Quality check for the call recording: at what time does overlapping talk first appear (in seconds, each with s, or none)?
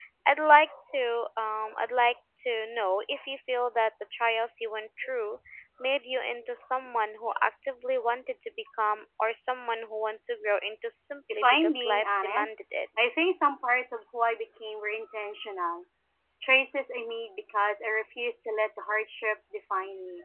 11.3 s